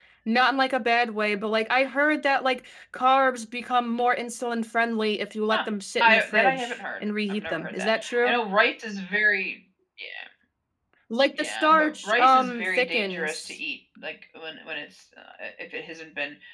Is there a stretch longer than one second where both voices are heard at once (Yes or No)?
Yes